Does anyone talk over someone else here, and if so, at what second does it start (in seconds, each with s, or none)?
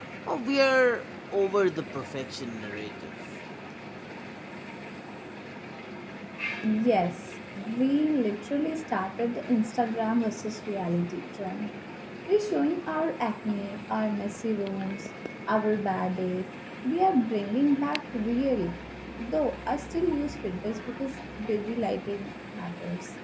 none